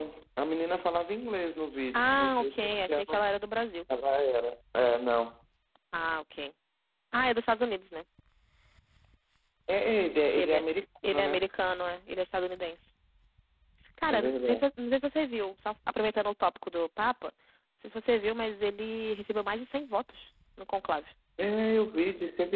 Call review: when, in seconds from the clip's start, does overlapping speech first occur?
1.9 s

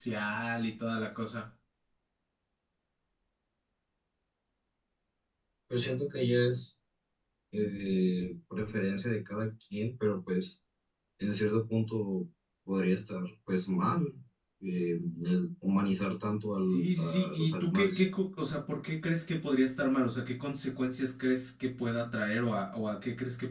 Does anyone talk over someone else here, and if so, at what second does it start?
16.7 s

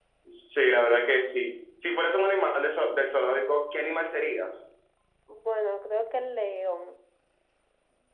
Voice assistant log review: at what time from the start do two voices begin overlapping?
none

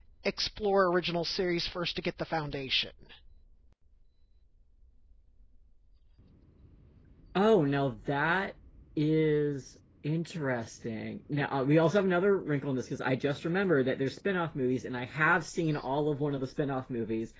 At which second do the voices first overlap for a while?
none

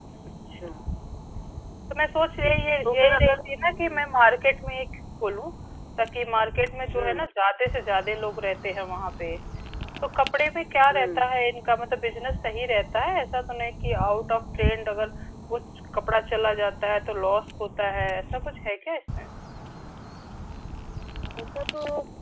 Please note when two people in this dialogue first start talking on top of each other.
2.2 s

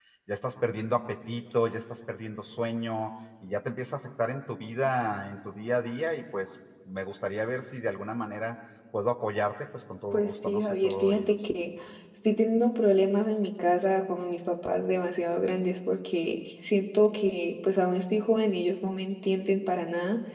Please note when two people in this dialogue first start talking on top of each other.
10.1 s

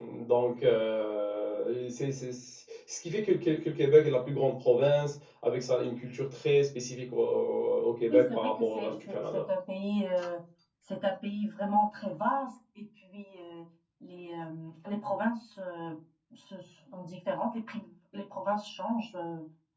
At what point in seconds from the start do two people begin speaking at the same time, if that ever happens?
8.1 s

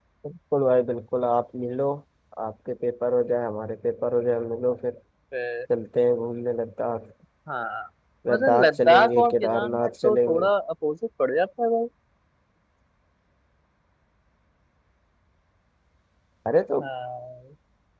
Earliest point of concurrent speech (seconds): 8.3 s

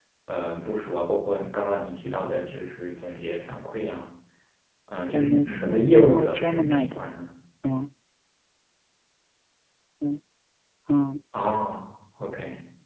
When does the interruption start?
5.1 s

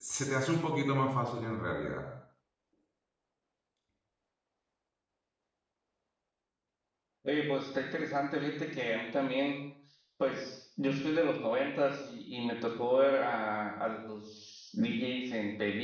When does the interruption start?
none

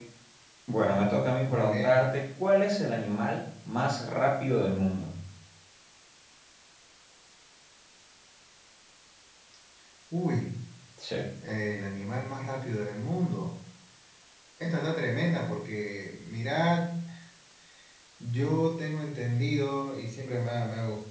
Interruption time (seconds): 0.8 s

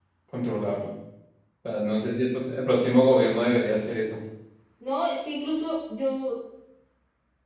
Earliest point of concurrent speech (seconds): none

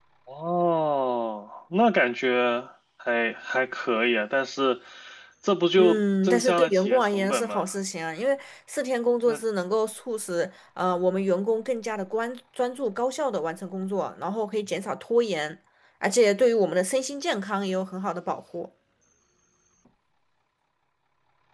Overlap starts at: 5.8 s

